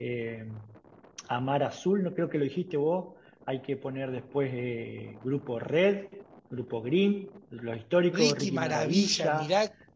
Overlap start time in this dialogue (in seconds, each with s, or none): 8.1 s